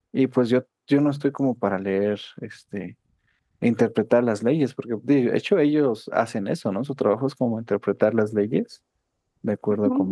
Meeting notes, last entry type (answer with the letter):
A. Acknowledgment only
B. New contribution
B